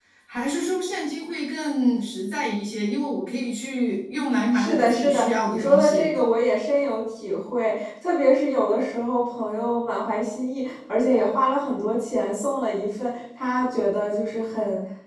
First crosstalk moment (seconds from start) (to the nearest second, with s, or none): 5 s